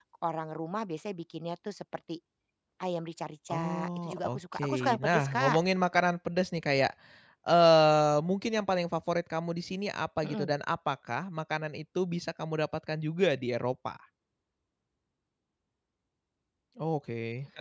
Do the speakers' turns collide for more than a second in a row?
Yes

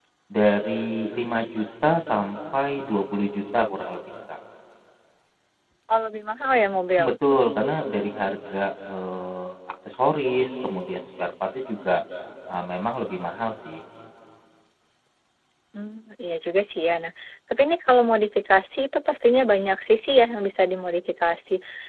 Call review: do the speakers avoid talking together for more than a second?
Yes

